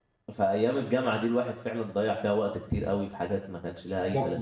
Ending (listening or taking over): taking over